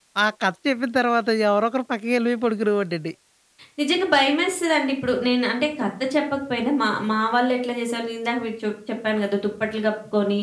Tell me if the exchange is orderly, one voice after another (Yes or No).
Yes